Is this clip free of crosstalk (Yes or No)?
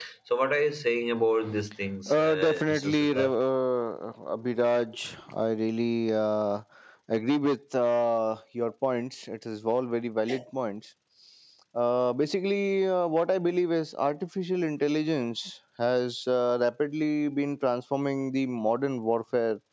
No